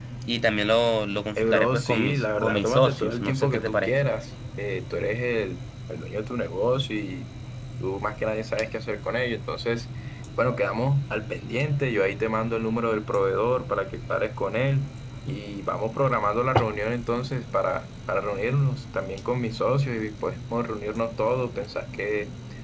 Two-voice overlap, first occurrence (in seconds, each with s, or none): 1.4 s